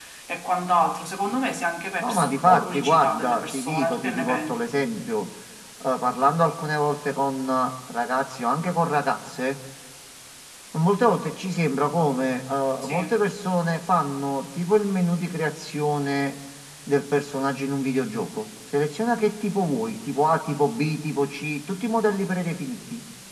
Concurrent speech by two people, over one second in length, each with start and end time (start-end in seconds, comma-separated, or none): 2.0-4.6